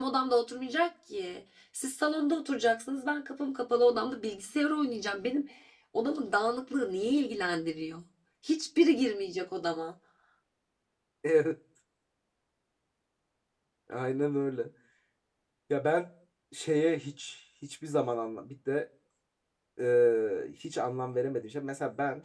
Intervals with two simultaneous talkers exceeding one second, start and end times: none

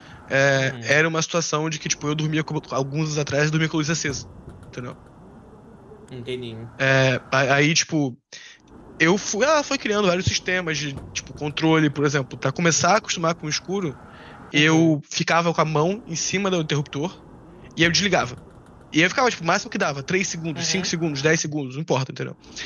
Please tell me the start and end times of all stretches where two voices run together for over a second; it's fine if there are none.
none

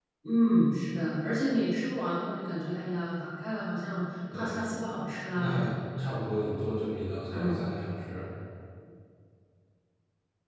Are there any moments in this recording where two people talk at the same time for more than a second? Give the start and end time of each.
none

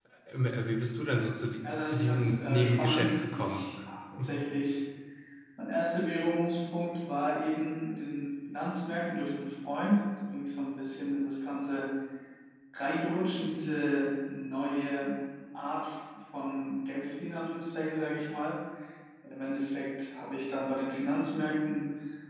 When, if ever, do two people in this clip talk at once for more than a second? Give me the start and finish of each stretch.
1.6-3.6

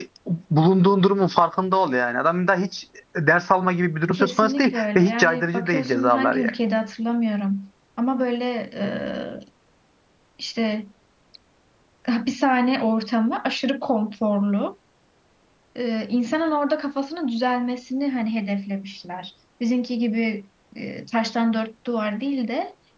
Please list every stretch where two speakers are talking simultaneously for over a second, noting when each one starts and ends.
4.1-6.5

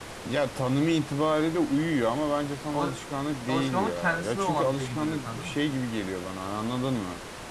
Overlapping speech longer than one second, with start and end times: 3.5-5.6

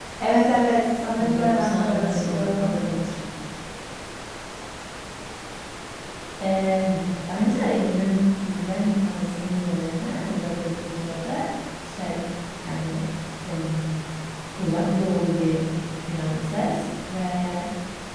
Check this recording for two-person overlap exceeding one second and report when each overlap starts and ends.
1.4-2.7

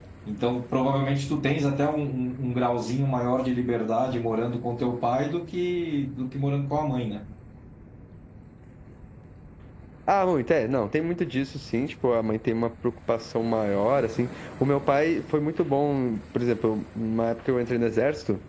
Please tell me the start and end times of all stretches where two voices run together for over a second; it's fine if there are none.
none

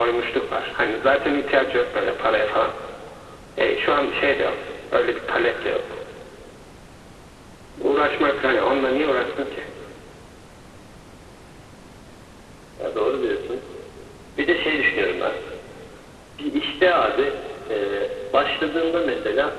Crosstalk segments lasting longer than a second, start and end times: none

